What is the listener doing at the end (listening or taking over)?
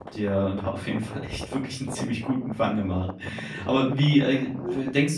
listening